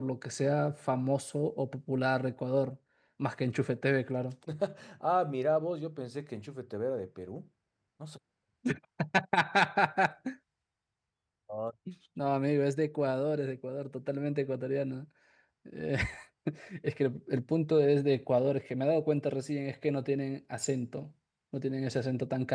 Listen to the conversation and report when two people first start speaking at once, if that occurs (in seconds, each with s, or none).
none